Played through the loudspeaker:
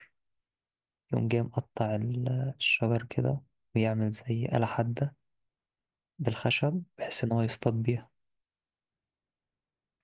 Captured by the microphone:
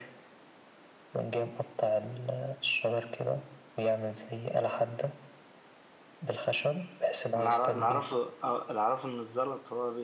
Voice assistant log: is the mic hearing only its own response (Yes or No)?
No